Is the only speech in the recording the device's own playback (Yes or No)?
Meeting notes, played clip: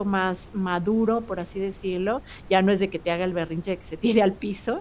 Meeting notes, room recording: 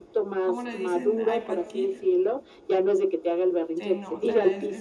No